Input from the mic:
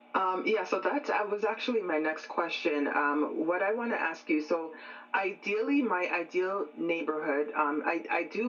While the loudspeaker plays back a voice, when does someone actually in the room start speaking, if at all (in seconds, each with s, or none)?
none